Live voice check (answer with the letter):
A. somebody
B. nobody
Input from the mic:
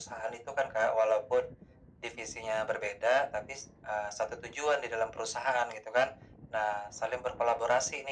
B